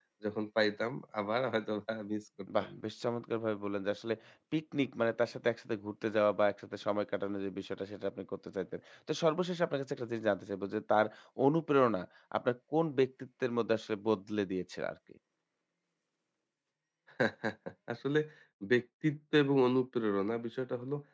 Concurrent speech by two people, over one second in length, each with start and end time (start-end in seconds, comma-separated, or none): none